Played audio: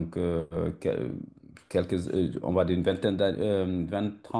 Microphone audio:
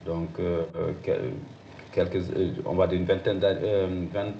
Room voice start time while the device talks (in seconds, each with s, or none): none